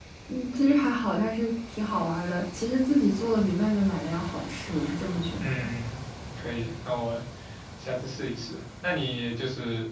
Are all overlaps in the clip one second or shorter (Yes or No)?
Yes